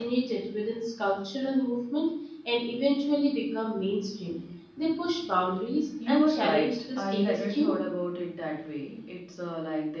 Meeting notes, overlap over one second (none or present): present